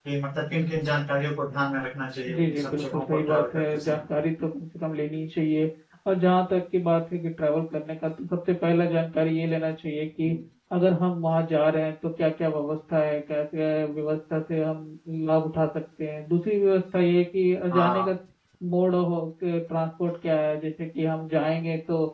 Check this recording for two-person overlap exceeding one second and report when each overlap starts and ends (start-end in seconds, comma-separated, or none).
2.4-4.0